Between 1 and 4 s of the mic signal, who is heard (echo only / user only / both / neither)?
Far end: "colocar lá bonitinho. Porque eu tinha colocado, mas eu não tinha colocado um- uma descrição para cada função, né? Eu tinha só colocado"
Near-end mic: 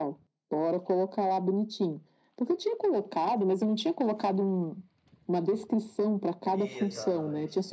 echo only